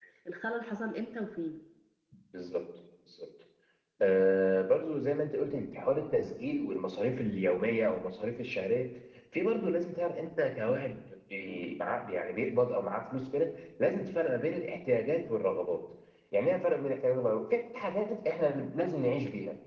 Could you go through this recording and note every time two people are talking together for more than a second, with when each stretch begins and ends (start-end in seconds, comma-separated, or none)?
none